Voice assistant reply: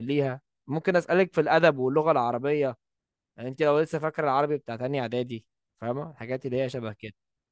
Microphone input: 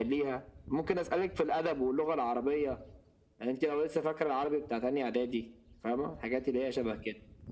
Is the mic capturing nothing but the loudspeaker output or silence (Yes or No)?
Yes